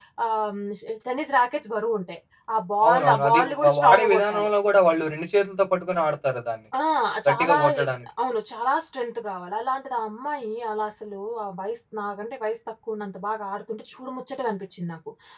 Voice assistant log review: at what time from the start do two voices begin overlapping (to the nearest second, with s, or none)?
3 s